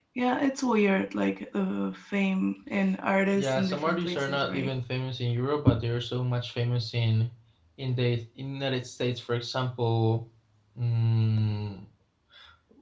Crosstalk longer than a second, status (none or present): present